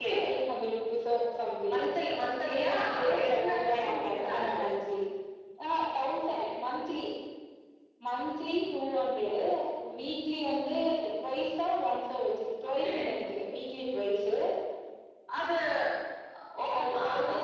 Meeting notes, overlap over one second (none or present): present